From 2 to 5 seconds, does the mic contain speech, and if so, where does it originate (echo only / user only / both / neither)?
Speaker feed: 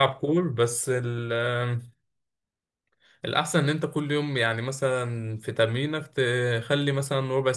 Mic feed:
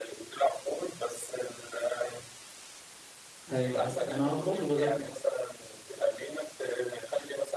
both